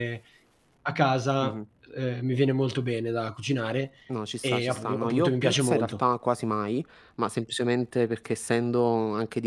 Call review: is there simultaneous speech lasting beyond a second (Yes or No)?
Yes